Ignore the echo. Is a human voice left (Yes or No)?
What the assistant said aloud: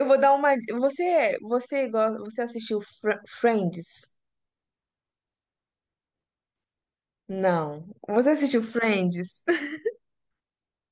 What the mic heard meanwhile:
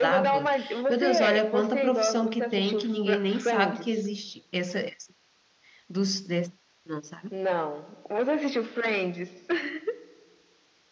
Yes